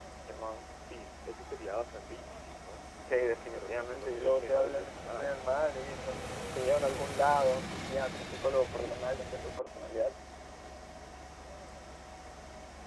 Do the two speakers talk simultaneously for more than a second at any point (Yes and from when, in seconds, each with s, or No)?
Yes, from 3.1 s